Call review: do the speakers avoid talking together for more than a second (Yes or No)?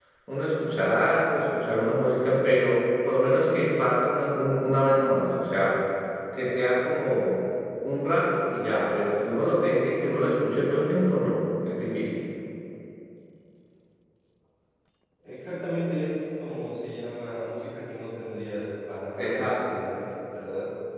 Yes